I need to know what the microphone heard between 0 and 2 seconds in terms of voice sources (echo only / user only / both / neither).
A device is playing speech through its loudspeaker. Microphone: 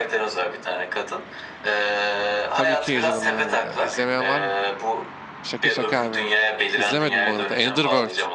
echo only